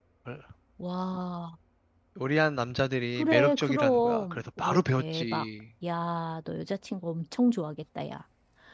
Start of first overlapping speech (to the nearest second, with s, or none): 3 s